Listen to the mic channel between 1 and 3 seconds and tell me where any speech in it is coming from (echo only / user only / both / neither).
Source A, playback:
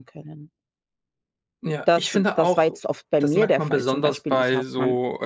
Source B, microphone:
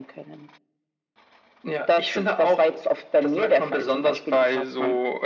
echo only